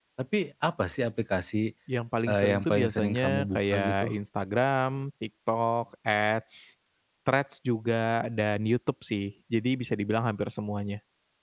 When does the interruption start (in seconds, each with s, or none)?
2.3 s